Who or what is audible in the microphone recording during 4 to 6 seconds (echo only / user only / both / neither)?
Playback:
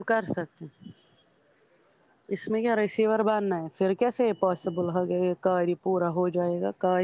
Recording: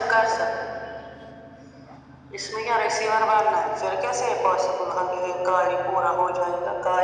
echo only